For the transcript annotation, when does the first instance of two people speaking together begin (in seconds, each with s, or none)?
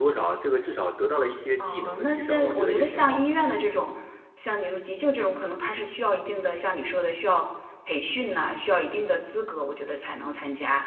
1.6 s